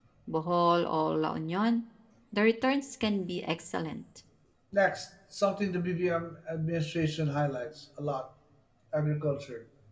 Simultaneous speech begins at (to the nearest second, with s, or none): none